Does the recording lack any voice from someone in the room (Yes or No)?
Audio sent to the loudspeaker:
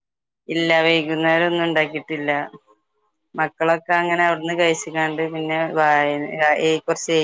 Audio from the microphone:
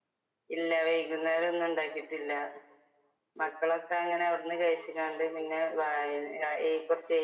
Yes